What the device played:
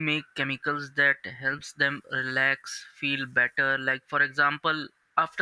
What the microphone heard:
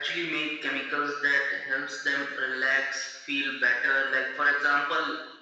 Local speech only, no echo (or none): none